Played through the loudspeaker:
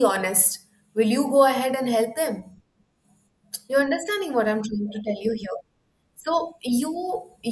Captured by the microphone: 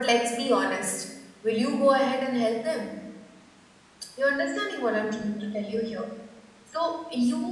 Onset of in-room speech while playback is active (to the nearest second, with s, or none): none